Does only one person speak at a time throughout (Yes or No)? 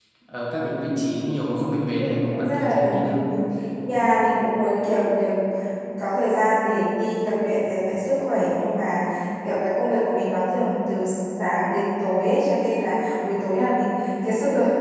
No